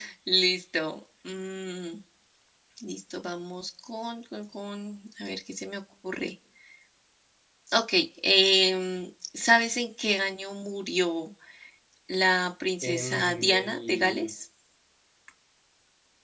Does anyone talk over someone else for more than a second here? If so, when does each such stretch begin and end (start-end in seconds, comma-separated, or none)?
12.8-14.3